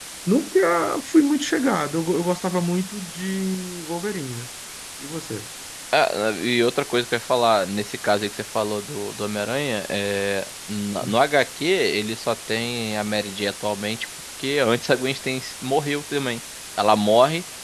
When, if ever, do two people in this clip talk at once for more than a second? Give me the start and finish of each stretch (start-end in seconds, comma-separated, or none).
none